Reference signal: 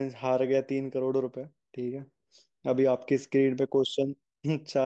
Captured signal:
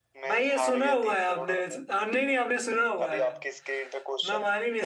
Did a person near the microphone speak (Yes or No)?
Yes